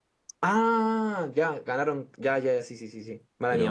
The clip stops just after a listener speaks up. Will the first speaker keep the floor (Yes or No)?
No